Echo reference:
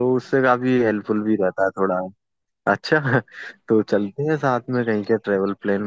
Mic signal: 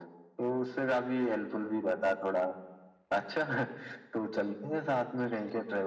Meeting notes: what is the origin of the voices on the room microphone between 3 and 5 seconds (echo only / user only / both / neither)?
echo only